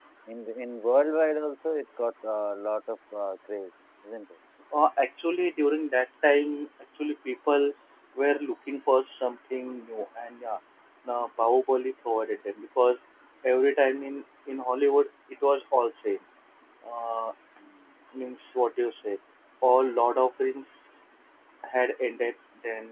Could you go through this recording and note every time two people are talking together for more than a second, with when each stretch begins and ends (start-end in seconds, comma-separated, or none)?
none